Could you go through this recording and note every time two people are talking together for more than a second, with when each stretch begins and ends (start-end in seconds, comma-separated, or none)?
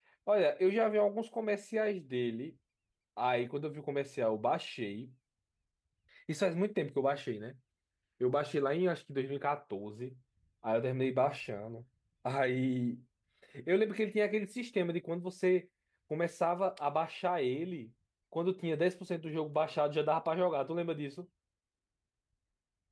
none